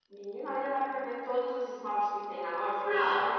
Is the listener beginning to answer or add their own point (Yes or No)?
Yes